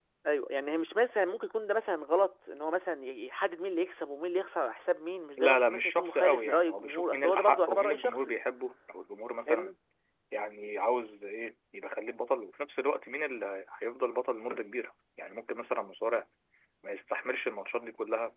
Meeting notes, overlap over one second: present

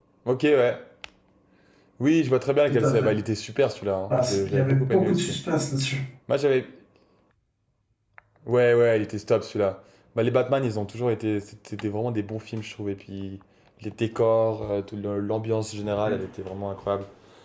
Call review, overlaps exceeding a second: present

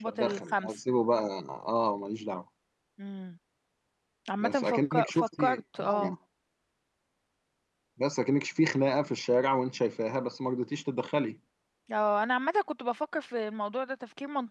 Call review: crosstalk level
present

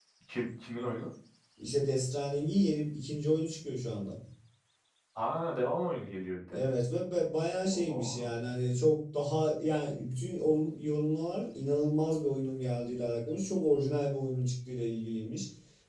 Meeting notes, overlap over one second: none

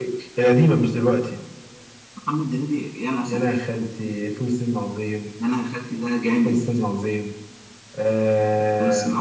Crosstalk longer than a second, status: none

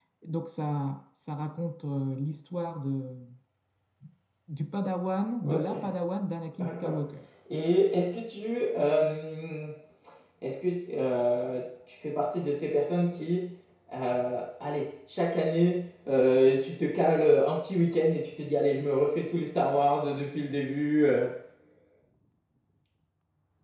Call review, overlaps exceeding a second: none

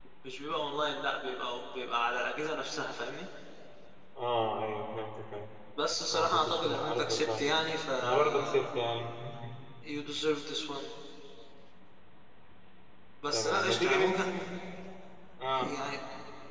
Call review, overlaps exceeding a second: present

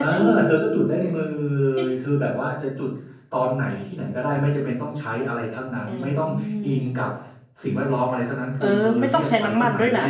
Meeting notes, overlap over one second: present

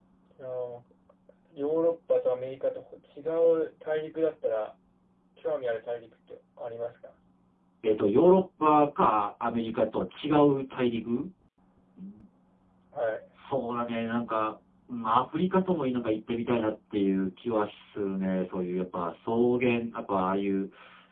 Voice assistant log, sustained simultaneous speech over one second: none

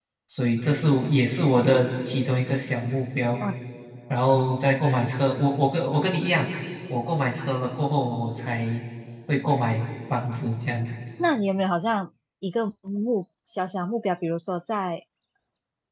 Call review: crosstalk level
none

